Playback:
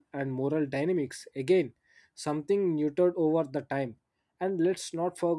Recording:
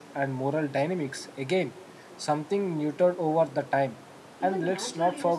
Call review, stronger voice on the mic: echo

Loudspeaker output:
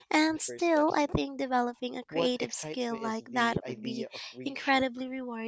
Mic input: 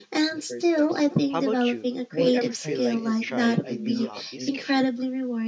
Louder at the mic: echo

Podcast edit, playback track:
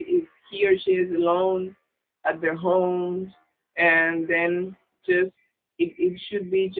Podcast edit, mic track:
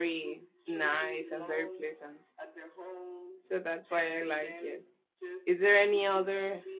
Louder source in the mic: user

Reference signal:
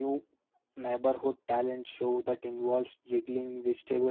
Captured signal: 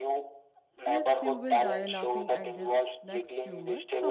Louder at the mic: echo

